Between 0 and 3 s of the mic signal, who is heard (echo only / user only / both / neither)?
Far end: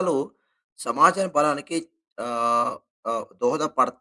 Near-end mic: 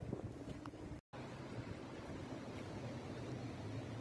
neither